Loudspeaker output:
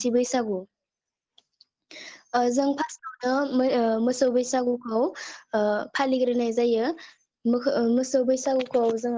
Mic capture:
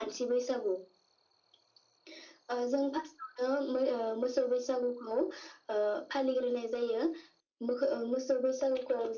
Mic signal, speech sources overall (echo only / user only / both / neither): echo only